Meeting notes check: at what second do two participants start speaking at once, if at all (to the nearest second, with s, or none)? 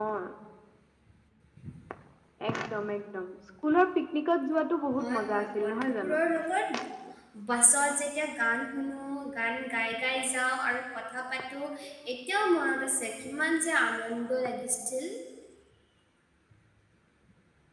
5 s